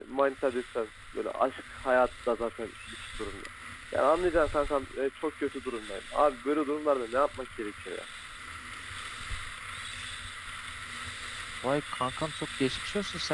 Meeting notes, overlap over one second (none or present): none